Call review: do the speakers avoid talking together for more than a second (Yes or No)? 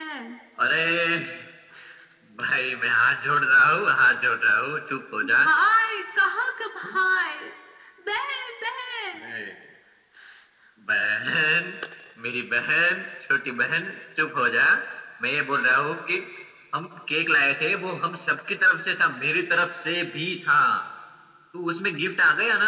Yes